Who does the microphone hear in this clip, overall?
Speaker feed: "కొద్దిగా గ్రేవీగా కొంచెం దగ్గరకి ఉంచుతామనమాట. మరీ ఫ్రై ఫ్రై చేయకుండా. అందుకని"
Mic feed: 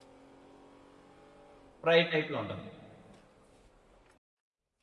user only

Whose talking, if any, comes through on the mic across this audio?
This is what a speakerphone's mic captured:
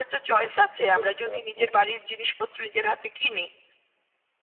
both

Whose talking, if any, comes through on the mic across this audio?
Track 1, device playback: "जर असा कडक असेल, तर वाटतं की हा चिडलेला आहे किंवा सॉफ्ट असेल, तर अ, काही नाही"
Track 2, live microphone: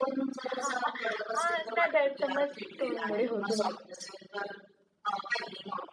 both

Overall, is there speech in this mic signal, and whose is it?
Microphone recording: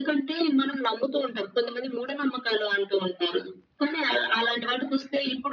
echo only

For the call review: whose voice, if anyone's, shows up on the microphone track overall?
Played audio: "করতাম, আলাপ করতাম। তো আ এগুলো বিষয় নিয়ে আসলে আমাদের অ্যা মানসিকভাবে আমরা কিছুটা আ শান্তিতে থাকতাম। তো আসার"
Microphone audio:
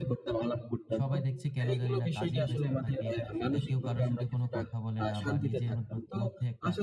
both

